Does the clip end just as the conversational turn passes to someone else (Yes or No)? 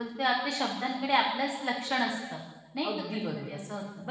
Yes